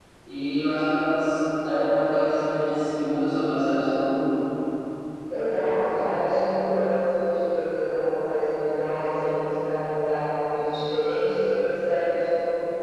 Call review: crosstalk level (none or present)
none